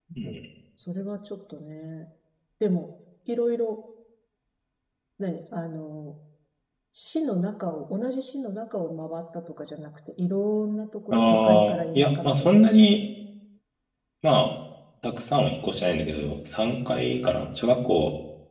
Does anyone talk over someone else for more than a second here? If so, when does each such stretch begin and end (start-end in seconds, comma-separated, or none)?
11.1-12.5